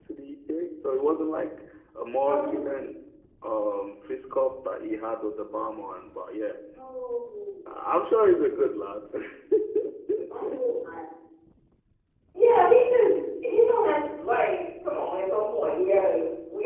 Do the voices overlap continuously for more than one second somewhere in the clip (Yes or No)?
No